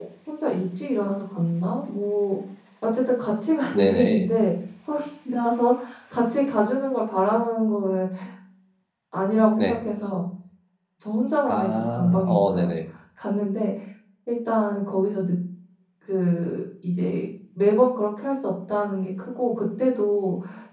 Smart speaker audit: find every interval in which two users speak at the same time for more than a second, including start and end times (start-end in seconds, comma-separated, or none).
11.5-12.7